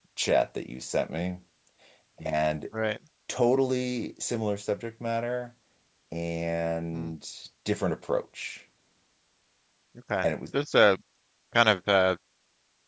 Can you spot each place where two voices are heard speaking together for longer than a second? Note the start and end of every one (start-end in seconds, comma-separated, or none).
none